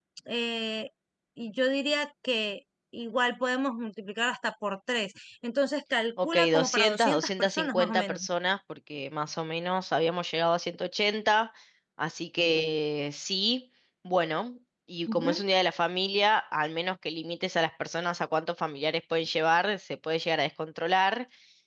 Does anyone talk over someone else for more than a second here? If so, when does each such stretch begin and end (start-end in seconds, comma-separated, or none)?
6.2-8.2